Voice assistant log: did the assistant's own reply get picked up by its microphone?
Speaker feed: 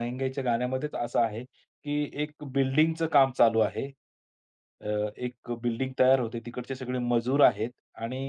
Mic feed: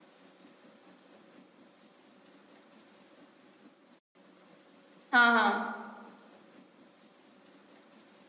No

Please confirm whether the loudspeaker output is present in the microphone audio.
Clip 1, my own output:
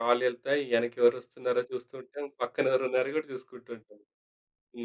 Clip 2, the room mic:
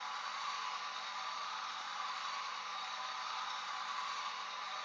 No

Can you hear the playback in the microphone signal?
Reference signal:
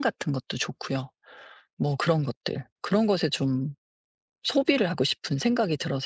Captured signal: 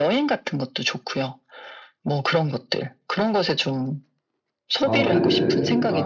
Yes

